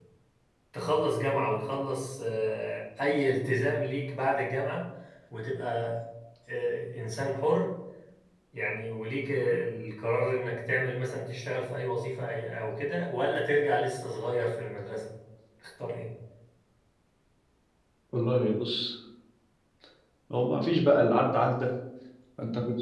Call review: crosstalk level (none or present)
none